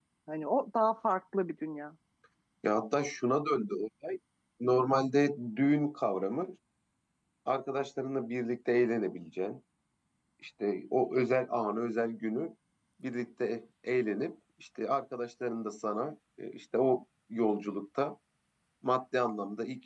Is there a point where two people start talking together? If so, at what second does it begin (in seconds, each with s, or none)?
none